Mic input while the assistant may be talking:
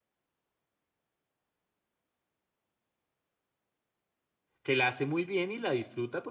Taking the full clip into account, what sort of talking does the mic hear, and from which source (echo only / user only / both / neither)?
user only